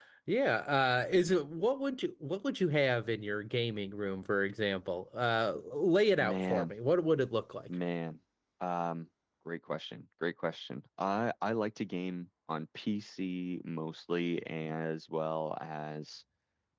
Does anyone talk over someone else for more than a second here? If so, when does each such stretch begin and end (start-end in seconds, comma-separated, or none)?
none